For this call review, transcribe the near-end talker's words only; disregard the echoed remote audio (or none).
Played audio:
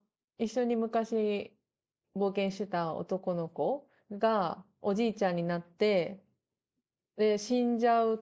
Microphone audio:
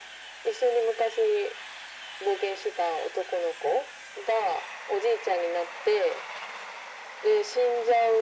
none